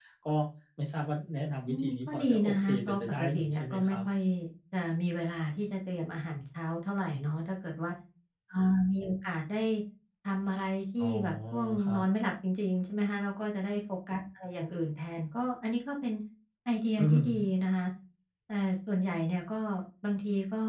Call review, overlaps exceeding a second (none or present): present